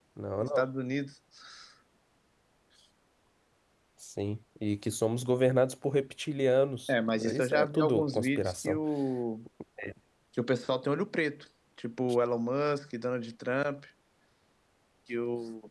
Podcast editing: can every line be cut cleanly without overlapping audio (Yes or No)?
No